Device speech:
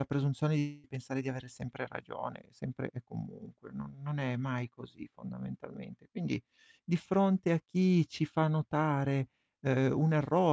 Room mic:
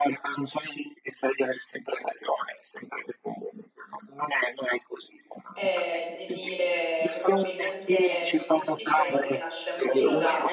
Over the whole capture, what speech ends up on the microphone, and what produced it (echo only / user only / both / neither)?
both